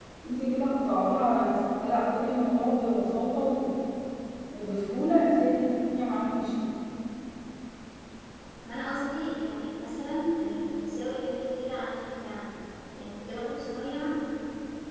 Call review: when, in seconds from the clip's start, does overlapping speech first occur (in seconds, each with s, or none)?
none